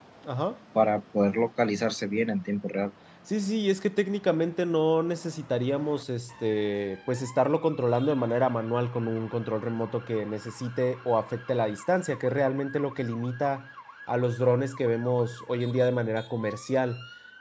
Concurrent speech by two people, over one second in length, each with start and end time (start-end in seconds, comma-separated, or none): none